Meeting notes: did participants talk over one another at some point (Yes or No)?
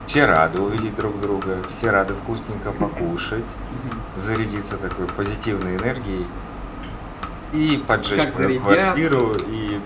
Yes